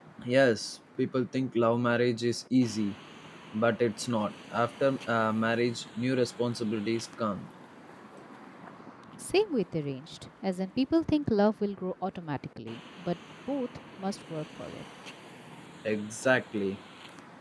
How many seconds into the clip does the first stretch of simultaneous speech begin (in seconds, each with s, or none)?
none